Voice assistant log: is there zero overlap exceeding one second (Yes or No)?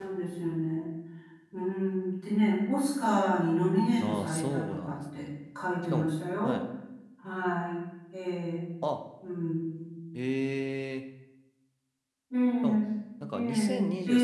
No